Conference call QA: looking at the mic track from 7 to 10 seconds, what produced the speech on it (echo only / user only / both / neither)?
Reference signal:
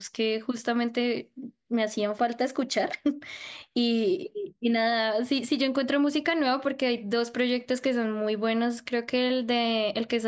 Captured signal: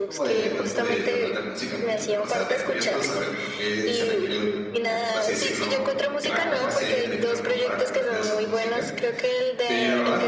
both